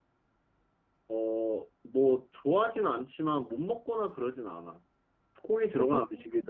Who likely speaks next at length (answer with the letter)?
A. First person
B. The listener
A